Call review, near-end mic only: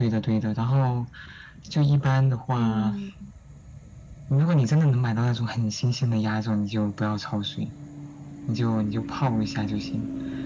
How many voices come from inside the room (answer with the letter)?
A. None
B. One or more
B